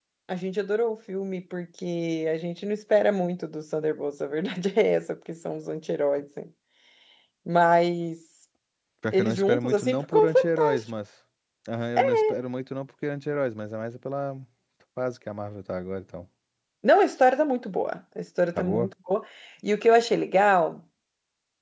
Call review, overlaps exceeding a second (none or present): present